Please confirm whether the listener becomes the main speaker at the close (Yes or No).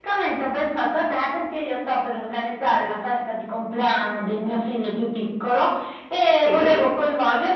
No